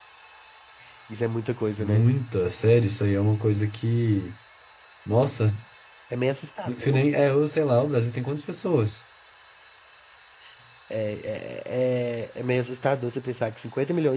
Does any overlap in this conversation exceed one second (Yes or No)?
No